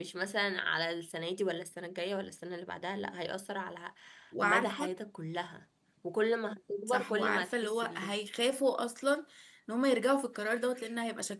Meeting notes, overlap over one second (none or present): present